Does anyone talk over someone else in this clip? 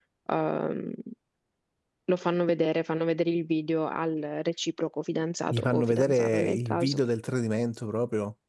Yes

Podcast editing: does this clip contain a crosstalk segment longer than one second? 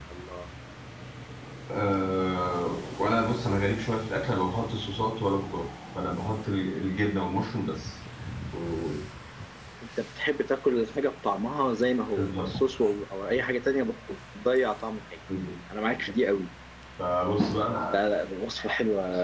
No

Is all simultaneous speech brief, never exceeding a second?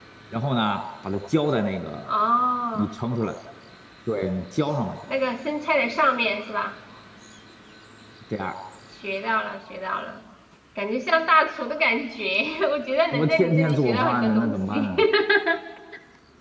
No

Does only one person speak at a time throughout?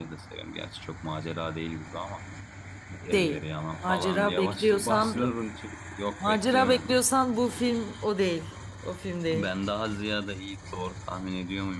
No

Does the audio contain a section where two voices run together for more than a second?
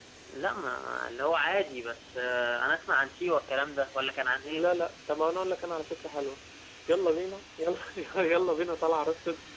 No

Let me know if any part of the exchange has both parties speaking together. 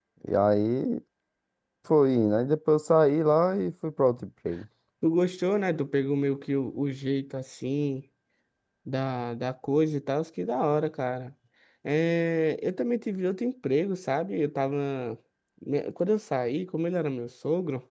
No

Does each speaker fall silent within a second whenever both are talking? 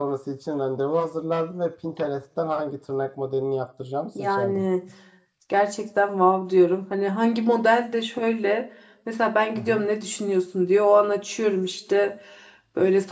Yes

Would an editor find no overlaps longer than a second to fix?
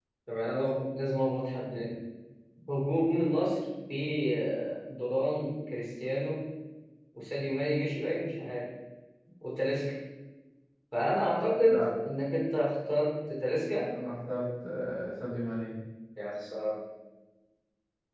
Yes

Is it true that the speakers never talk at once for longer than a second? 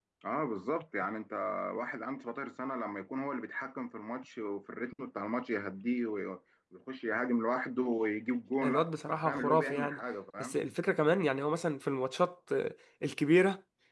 No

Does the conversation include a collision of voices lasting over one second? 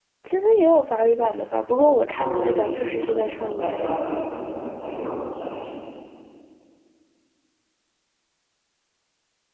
Yes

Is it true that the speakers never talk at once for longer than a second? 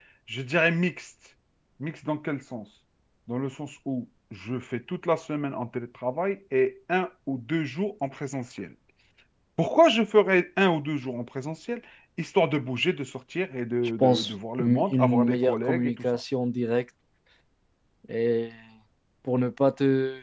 No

